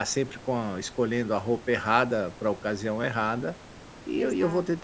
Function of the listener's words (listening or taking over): listening